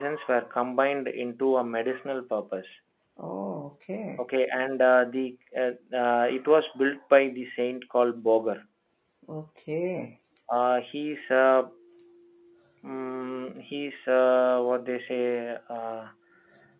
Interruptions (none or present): none